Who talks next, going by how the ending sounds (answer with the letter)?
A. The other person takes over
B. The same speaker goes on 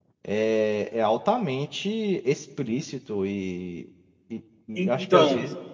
B